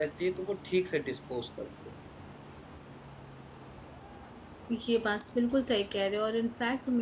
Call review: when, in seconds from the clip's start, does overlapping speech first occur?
none

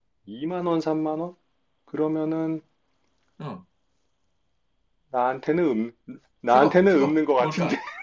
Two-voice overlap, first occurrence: 6.5 s

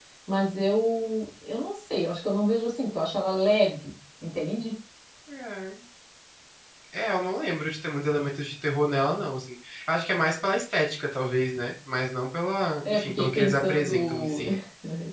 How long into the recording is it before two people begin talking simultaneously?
12.8 s

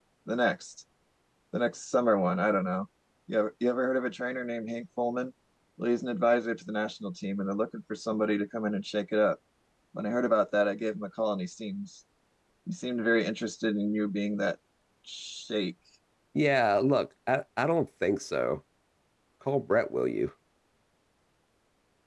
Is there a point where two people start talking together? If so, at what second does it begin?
none

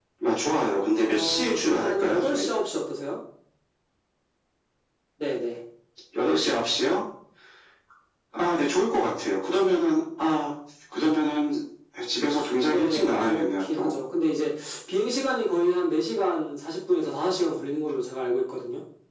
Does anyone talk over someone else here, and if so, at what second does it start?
1.1 s

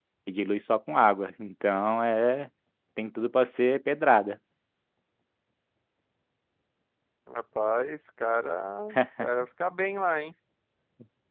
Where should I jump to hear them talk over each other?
none

